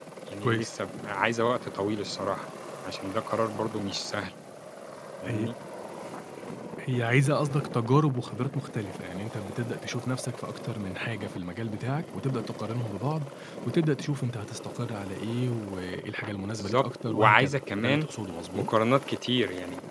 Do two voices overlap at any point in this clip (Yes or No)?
Yes